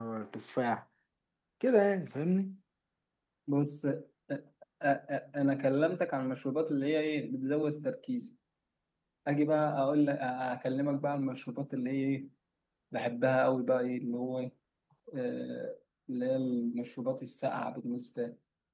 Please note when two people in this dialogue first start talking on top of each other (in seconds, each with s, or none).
none